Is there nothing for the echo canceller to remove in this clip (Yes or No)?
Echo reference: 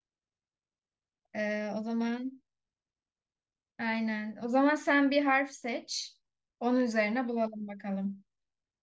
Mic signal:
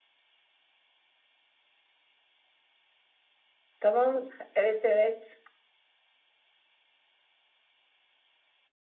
Yes